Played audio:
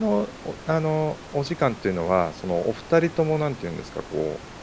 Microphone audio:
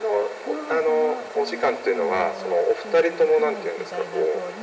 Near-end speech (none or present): present